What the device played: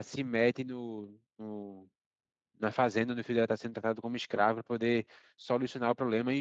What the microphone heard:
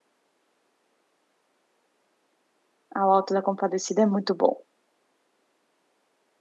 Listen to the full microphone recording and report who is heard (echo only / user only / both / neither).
user only